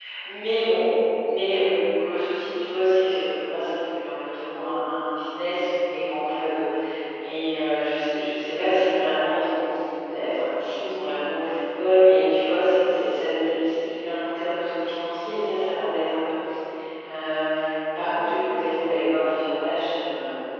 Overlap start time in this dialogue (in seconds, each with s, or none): none